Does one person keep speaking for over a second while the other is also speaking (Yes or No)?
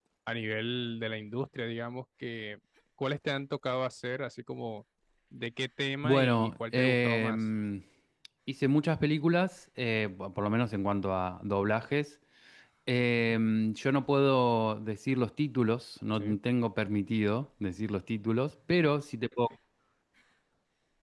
Yes